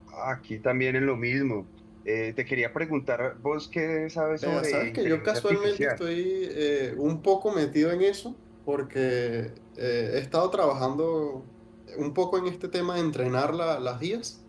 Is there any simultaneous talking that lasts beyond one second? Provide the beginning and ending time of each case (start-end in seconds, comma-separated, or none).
4.4-6.0